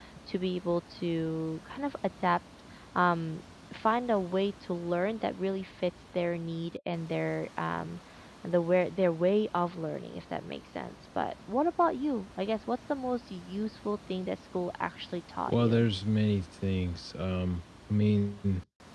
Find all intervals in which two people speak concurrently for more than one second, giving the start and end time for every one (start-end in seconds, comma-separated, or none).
none